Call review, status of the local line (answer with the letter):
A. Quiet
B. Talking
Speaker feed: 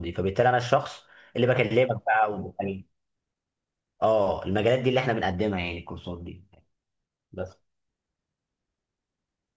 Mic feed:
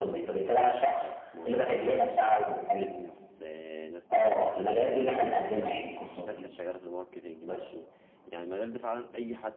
B